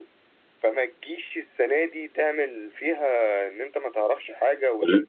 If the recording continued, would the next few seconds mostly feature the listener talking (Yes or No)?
No